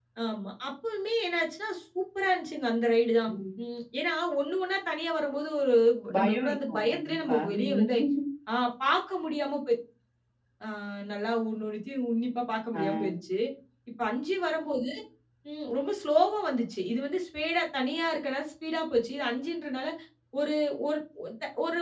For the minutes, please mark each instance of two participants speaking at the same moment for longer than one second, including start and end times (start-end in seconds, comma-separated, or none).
6.2-7.9